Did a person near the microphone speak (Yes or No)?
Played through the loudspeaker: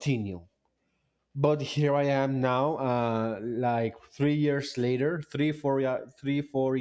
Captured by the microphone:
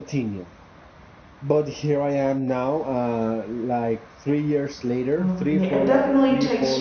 Yes